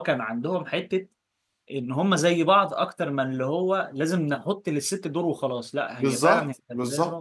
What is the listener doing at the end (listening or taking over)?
taking over